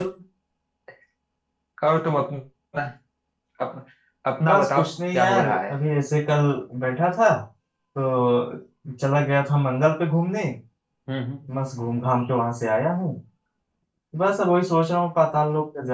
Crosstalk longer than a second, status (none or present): present